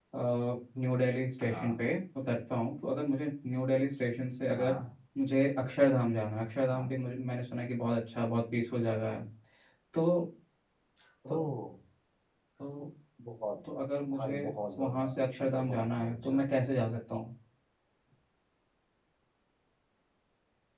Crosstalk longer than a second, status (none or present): present